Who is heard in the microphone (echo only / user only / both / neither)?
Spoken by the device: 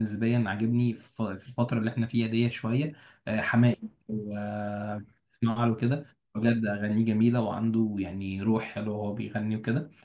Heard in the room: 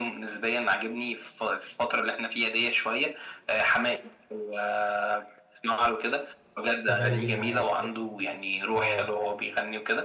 both